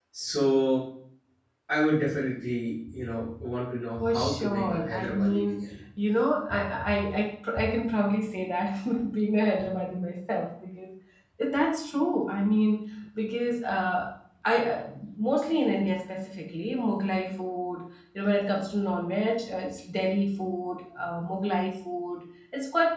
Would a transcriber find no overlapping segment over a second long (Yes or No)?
No